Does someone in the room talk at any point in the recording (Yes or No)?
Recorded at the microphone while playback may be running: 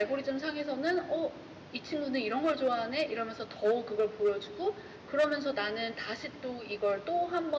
No